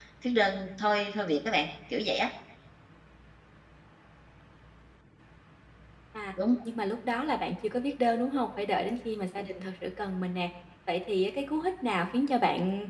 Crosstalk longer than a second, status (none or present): none